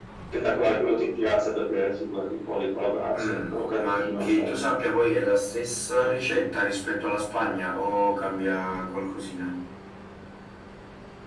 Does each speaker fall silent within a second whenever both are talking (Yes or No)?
No